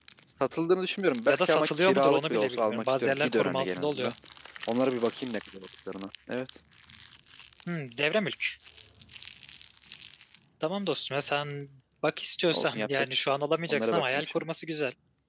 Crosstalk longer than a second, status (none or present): present